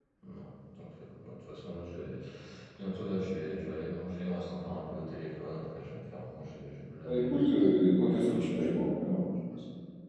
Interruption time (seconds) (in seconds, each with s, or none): 7.0 s